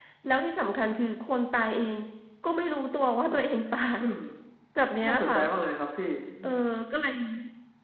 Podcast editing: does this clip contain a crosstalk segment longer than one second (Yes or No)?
No